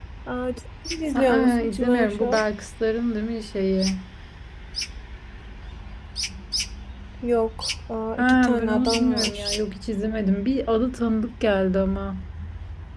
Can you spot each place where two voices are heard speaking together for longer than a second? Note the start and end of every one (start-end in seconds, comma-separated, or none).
1.1-2.4, 8.2-9.5